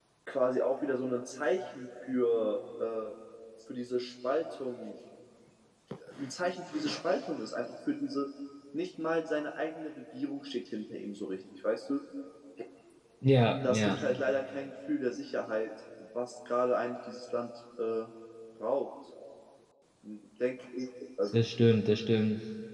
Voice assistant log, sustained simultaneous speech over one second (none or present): none